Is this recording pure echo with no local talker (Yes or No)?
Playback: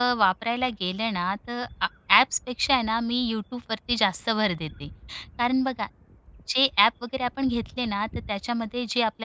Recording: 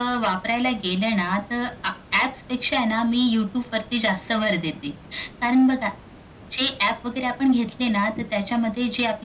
Yes